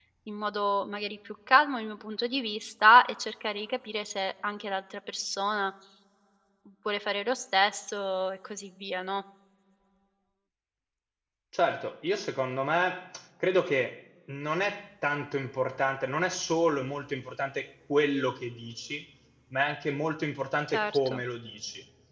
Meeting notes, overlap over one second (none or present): none